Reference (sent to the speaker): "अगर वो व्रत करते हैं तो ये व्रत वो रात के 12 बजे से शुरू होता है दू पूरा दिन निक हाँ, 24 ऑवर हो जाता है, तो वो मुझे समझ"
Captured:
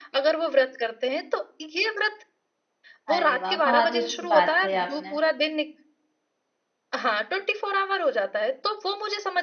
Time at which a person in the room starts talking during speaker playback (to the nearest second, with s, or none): 3 s